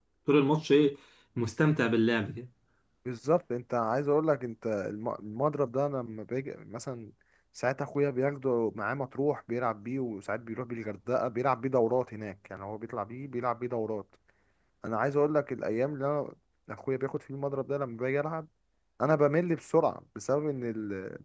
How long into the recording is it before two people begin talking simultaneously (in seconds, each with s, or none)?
none